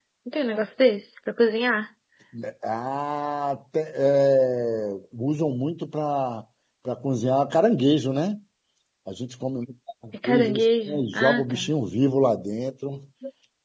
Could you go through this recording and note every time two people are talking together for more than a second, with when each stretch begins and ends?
10.2-11.7

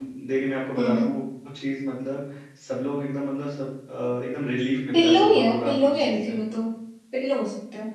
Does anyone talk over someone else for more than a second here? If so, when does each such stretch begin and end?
4.9-6.4

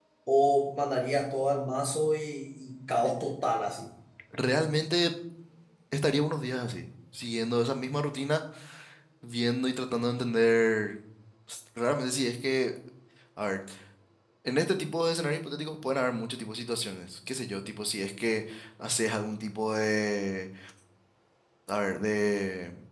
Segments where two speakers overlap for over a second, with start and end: none

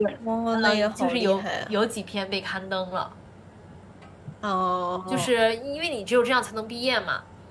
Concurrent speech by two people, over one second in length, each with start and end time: 0.5-1.7

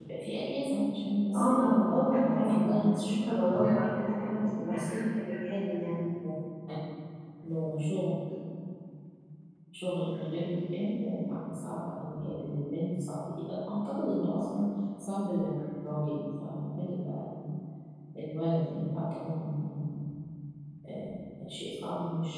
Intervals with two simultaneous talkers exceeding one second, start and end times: 1.3-3.1

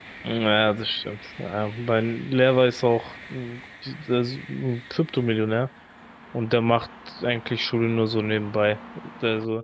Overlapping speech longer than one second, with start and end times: none

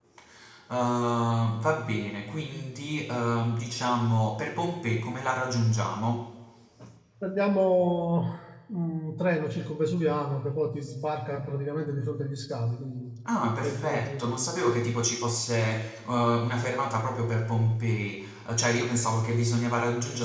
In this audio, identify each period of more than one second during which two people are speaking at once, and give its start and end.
13.6-15.0

